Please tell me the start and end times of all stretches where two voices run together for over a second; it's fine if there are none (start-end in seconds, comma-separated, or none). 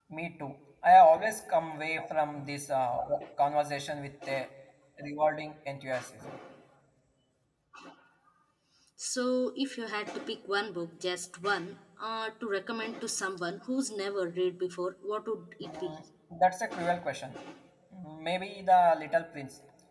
none